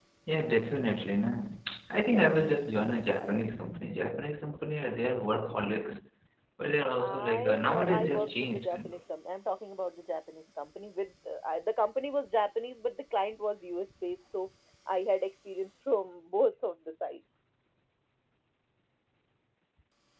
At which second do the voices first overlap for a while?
7 s

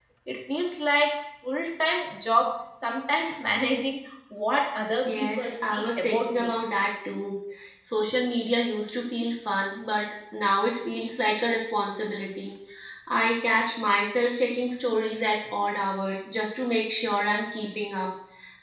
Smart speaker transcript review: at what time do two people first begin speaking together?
5 s

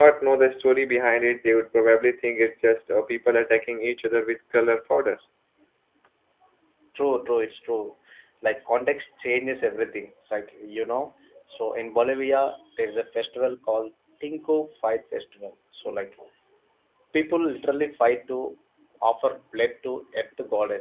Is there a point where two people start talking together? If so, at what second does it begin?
none

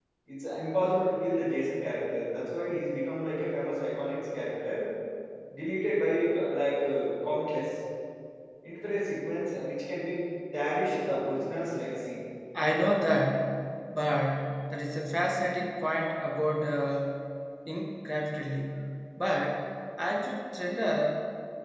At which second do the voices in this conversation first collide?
none

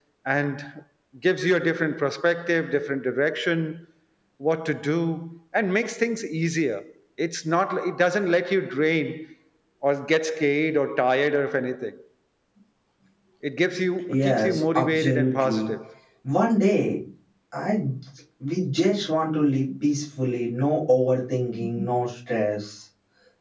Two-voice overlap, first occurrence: 14 s

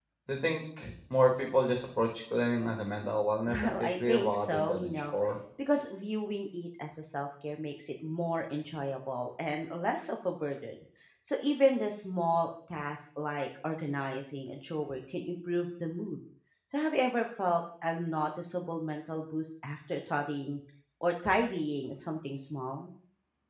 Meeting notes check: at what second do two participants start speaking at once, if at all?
3 s

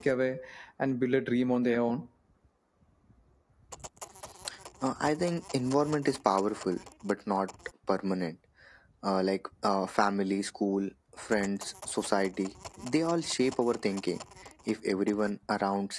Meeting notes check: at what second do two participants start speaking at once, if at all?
none

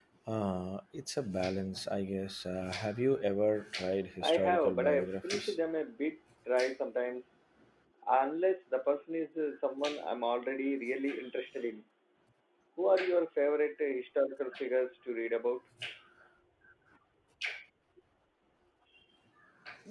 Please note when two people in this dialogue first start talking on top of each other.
4 s

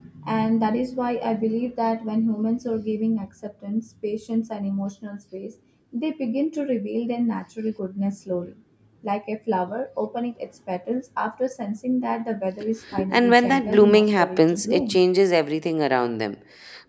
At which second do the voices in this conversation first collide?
13 s

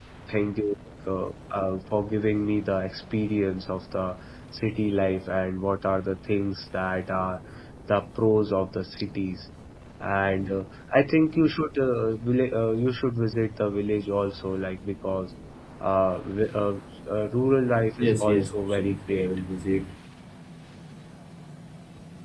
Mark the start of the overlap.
18 s

